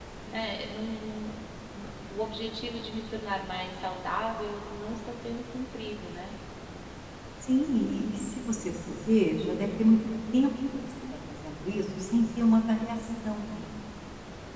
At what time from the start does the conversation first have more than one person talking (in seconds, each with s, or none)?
none